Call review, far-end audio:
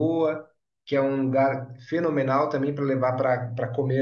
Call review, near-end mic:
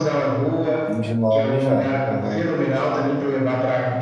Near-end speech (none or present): present